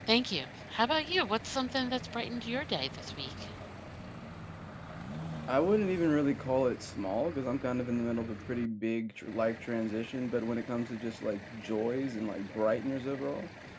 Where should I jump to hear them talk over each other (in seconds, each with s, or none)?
none